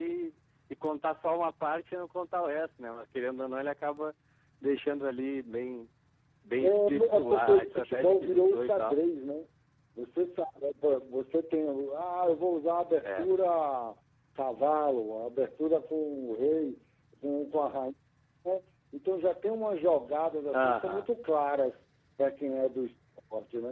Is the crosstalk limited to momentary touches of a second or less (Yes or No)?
No